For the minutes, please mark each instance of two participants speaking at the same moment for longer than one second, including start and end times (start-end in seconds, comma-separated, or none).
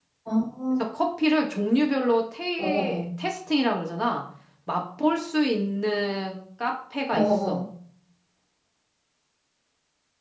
none